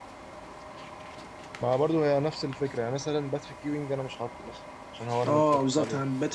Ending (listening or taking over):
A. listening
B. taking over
B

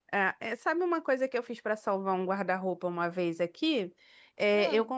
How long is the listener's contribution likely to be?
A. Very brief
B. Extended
A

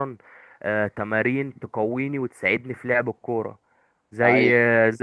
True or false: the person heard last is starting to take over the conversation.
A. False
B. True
A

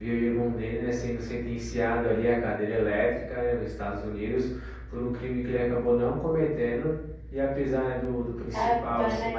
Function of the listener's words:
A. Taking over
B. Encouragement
B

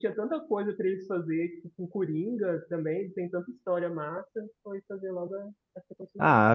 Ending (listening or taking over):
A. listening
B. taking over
B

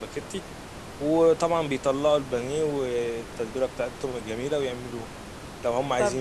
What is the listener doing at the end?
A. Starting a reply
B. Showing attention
B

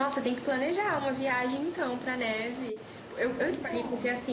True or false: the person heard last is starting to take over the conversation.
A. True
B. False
B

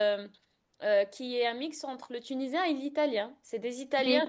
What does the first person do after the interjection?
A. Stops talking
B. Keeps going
B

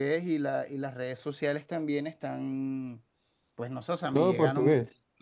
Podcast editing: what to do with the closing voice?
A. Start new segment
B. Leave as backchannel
B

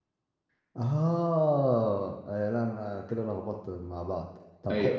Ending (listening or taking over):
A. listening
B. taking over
A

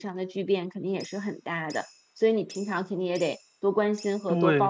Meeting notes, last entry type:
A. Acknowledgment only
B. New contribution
B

